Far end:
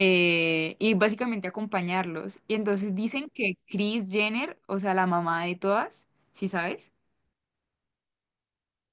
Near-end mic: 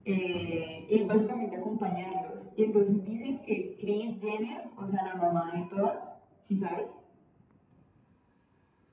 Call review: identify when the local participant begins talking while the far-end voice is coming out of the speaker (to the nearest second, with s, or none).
0 s